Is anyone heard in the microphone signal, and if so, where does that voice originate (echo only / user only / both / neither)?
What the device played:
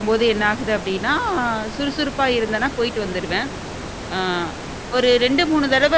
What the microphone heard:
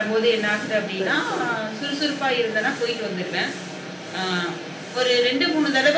both